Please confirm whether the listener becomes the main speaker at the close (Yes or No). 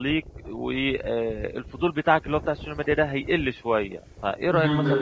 Yes